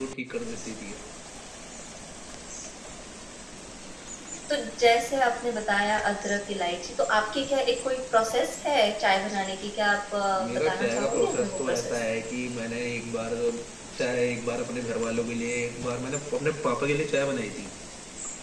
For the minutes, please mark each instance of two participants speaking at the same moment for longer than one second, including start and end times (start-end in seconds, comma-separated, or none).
10.6-12.0